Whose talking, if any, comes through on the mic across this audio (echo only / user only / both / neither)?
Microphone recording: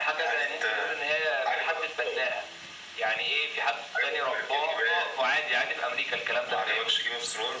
echo only